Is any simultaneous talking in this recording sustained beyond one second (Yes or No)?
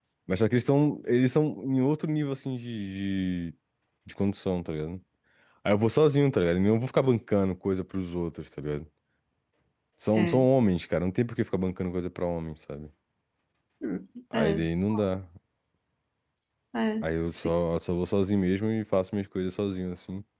No